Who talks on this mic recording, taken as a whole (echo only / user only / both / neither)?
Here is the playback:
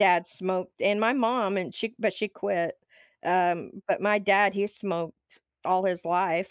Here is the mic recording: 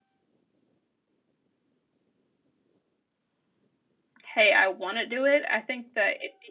user only